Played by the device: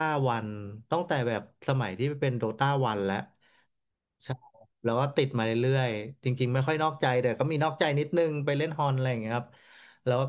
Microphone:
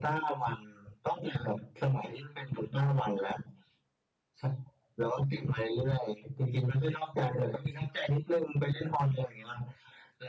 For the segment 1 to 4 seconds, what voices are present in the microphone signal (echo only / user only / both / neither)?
echo only